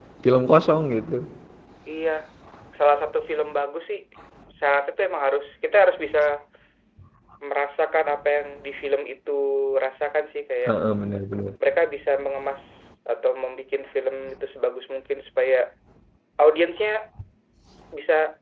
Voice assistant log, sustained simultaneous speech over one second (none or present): none